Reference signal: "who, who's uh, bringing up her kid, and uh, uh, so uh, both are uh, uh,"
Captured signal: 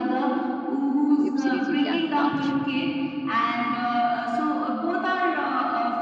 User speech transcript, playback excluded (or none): web series you can watch.